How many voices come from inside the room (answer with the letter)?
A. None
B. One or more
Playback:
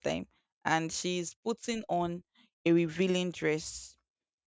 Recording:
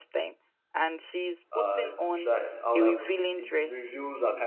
B